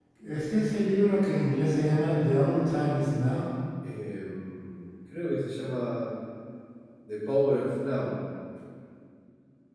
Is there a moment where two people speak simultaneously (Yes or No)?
No